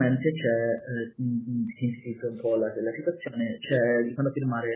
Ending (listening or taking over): listening